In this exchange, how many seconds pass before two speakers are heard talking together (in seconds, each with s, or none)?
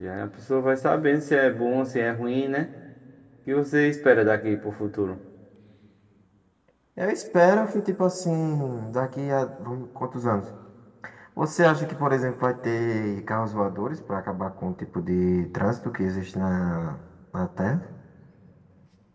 none